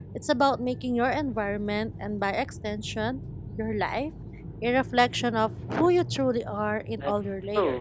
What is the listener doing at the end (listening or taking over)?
taking over